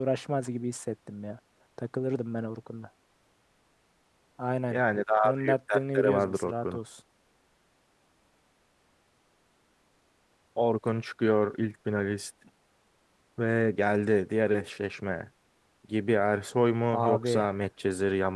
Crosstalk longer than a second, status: present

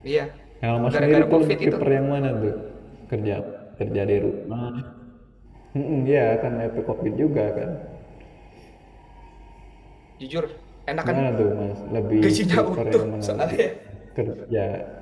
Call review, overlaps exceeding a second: present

